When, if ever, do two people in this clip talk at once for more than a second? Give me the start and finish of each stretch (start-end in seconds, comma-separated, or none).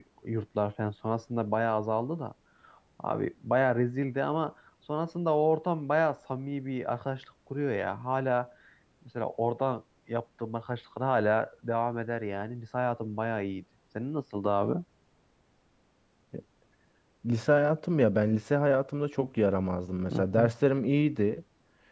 none